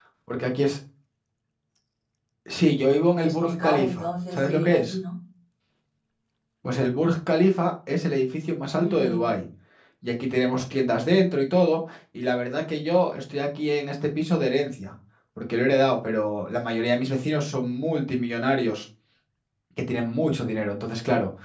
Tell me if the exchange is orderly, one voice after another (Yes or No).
No